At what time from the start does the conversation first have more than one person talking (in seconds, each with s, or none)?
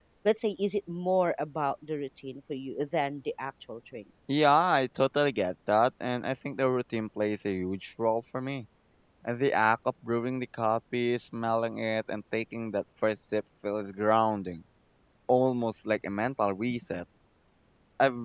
none